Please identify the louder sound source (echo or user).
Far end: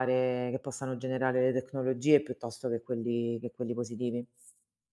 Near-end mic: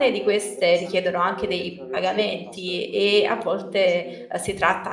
user